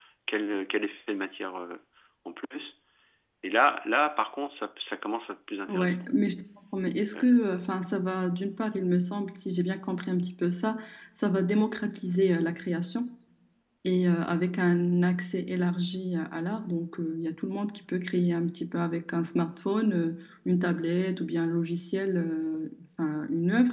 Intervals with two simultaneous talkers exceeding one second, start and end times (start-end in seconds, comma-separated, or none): none